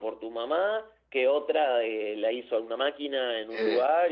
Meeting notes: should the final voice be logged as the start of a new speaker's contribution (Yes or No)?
No